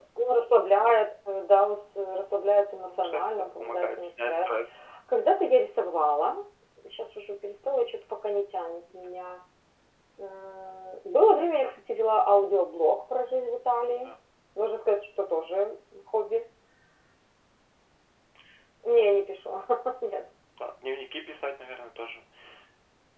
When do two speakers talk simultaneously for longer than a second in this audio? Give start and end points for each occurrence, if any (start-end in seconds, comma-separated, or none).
2.8-4.5